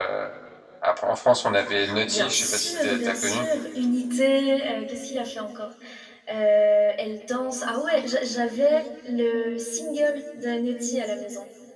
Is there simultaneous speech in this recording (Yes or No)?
Yes